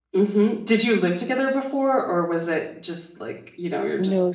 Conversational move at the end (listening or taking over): taking over